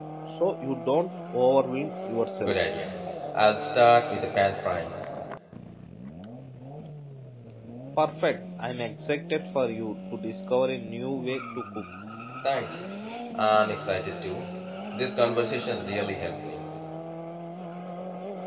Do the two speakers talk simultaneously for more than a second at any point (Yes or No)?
No